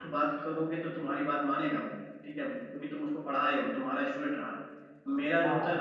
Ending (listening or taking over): listening